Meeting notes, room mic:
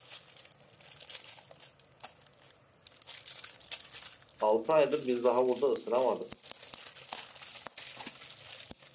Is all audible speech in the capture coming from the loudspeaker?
No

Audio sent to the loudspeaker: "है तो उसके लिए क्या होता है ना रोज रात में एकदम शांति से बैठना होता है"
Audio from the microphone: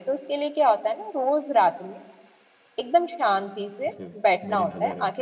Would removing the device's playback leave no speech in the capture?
No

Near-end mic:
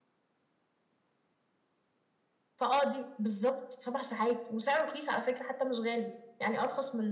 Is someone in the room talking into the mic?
Yes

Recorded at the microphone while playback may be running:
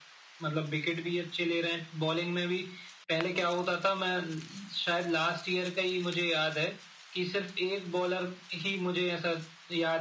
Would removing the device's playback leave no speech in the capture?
Yes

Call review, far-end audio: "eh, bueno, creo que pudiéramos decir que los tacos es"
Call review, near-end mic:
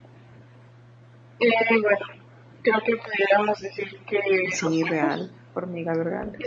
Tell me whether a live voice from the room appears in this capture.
Yes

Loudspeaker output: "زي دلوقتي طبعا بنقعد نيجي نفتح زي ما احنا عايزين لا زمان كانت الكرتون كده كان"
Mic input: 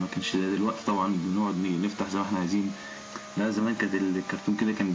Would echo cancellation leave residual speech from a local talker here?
No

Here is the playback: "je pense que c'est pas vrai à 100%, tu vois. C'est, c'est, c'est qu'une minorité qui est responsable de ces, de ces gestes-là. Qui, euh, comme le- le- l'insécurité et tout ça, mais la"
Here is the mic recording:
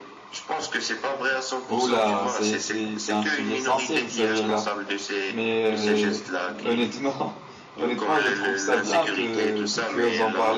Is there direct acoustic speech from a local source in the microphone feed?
Yes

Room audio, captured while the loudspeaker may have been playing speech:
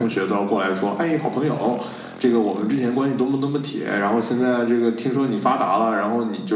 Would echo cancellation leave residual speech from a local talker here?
No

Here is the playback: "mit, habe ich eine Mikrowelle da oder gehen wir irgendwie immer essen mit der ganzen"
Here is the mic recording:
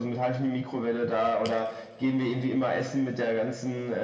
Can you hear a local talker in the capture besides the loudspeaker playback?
No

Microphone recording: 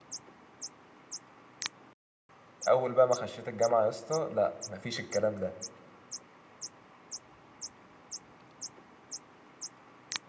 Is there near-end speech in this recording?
Yes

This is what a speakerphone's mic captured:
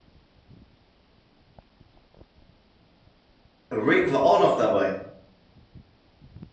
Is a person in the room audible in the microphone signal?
Yes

